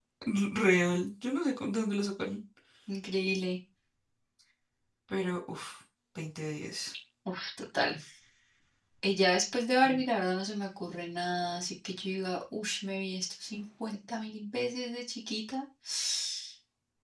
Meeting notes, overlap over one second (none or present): none